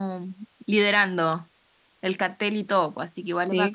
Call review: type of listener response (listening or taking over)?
taking over